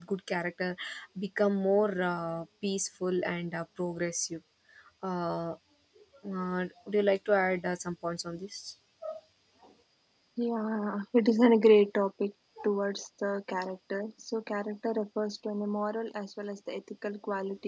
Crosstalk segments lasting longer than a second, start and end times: none

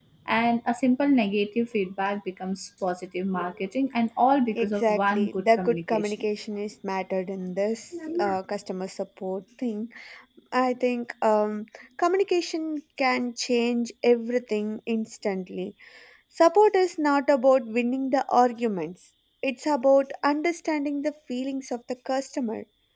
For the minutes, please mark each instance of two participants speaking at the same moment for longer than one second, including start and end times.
4.6-6.2

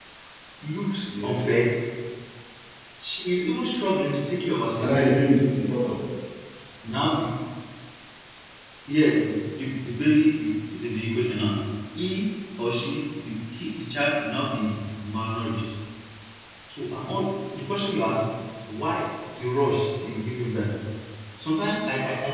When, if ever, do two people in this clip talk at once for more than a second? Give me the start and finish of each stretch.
none

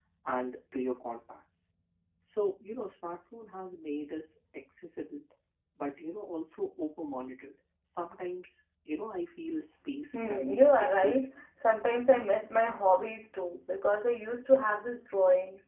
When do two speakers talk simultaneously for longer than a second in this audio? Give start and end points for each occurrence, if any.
10.1-11.4

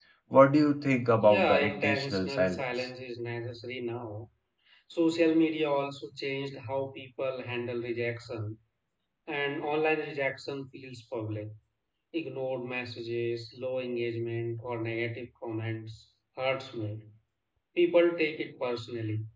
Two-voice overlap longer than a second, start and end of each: 1.2-2.9

